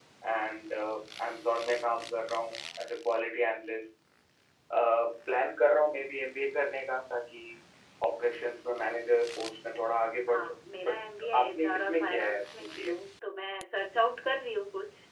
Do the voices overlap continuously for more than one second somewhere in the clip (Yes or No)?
Yes